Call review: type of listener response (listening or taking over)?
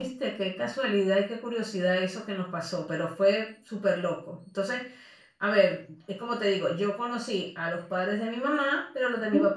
listening